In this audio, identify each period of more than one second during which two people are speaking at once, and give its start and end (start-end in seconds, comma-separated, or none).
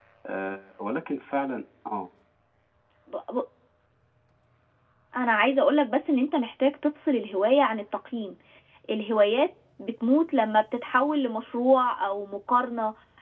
none